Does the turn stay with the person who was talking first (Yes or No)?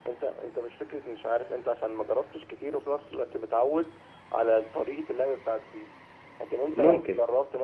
Yes